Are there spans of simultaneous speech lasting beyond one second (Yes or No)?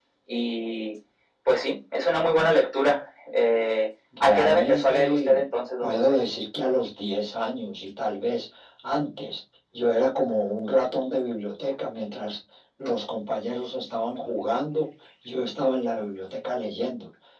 Yes